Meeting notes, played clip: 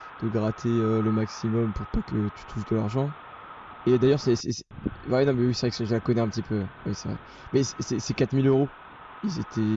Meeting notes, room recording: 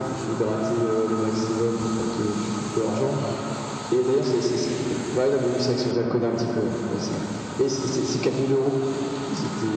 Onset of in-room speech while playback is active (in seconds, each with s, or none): none